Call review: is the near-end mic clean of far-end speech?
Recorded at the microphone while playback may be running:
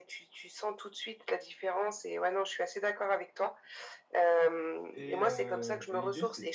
No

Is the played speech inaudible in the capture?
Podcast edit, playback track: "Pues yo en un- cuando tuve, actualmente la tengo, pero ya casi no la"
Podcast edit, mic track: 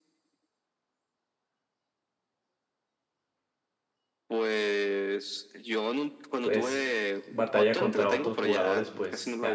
No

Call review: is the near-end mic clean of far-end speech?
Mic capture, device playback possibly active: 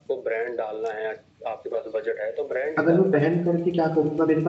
No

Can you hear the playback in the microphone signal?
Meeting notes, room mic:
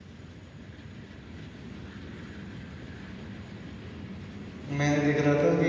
No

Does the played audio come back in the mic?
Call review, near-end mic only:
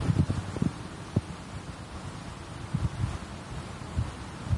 No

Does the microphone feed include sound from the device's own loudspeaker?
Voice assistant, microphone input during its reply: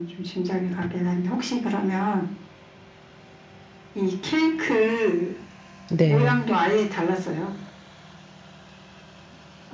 Yes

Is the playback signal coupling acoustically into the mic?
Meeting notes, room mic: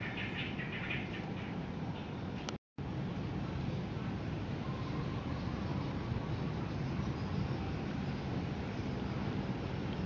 No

